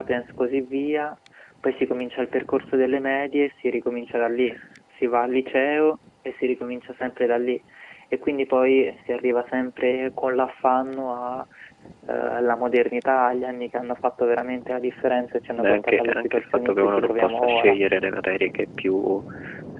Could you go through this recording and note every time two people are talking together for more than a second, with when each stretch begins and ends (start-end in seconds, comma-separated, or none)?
15.6-17.8